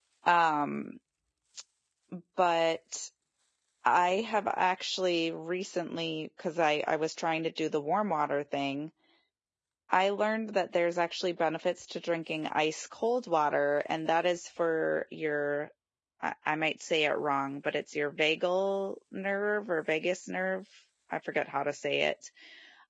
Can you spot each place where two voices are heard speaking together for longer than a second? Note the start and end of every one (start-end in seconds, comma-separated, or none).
none